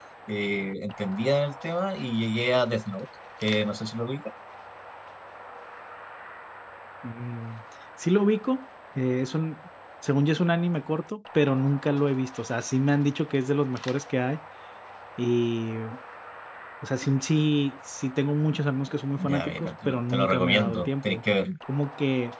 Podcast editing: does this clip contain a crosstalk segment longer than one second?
Yes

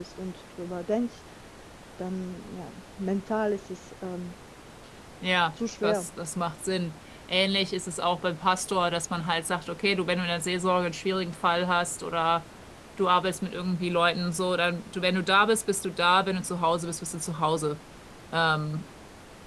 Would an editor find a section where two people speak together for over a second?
No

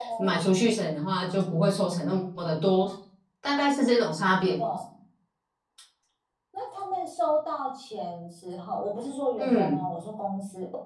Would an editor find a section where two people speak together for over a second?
No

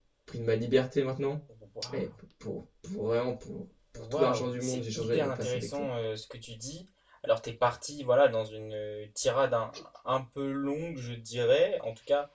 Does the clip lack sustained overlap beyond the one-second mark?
No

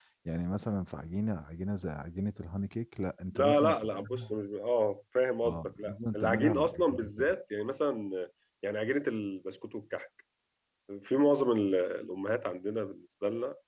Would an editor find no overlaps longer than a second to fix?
No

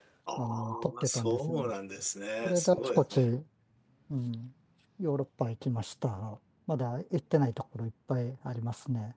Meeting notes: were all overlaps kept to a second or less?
No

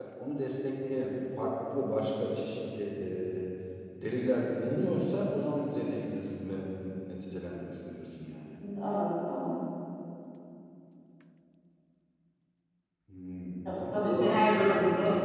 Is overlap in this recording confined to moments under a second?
No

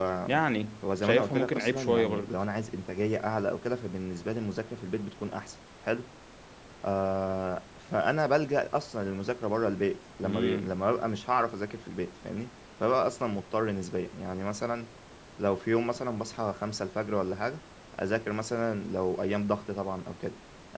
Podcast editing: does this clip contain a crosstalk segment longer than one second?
Yes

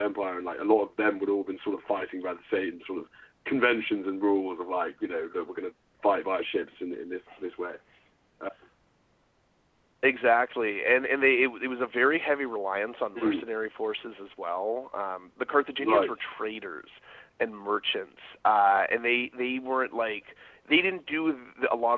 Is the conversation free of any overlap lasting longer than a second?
Yes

